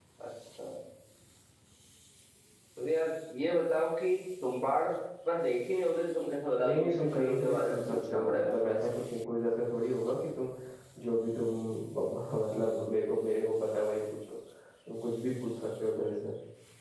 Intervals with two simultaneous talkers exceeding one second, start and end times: 6.6-8.9

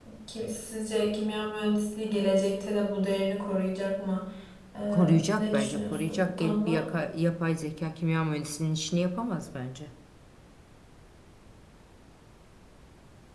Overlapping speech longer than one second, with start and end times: 4.9-6.8

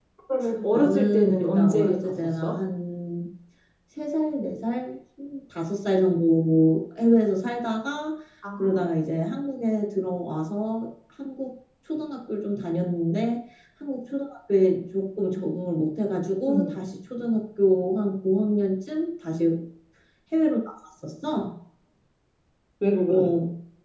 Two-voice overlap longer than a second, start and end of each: 0.7-2.6

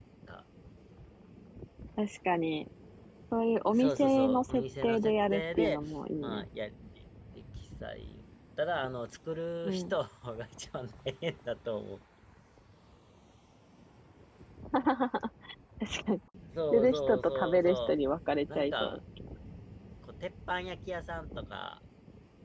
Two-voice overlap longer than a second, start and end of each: 3.7-5.8, 16.7-17.9

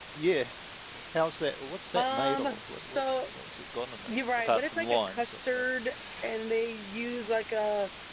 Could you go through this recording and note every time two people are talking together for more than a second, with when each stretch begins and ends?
1.9-3.3, 4.1-5.6

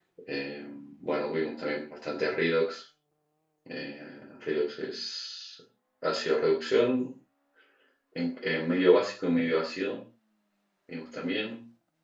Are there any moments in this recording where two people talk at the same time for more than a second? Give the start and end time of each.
none

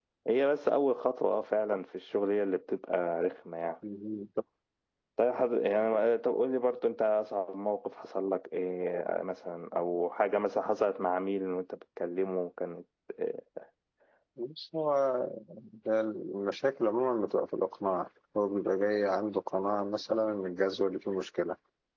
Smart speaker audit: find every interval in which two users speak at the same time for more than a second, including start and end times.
none

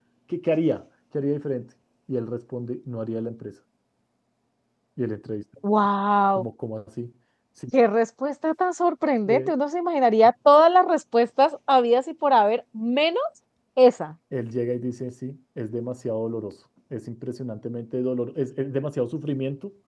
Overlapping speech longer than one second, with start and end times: none

